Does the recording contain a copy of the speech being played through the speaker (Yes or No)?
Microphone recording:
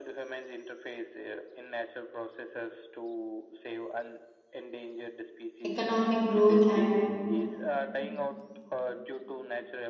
Yes